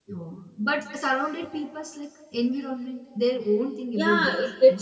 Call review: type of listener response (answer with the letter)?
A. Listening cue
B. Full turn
B